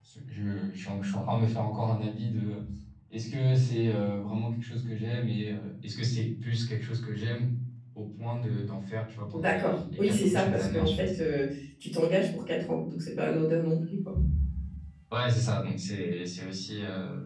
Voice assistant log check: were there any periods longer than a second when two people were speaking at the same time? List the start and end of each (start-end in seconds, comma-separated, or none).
9.3-11.1